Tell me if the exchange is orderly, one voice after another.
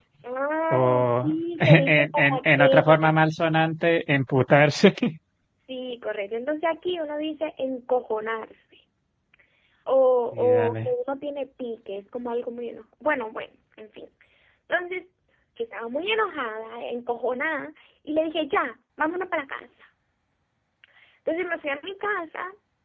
No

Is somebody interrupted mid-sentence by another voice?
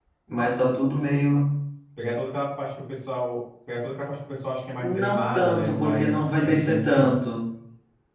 Yes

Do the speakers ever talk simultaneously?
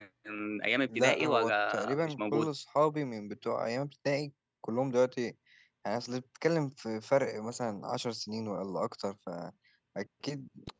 Yes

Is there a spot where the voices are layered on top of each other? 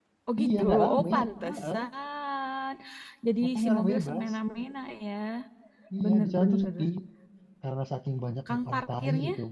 Yes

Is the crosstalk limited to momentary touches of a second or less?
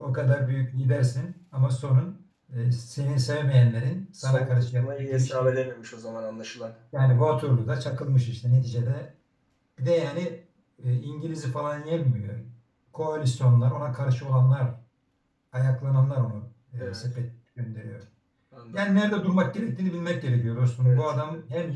No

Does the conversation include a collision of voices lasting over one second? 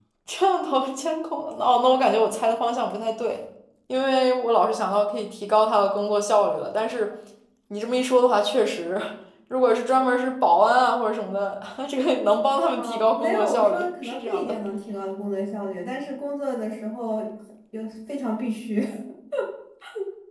Yes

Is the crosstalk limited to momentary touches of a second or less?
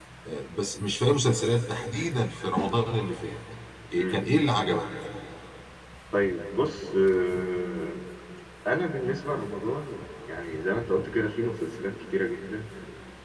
Yes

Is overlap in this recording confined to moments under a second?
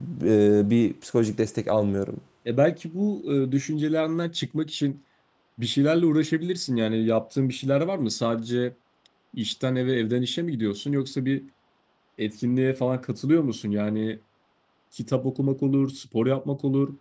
Yes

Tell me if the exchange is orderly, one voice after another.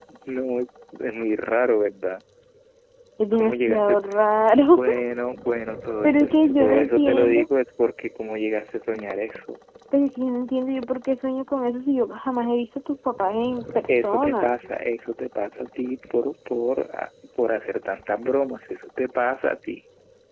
No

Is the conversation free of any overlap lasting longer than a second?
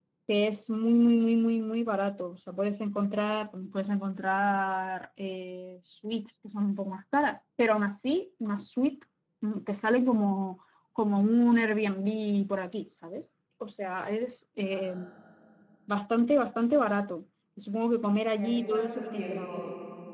No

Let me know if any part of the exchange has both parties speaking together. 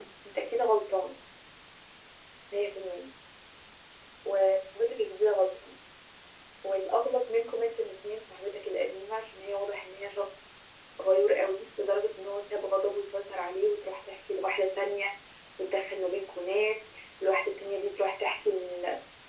No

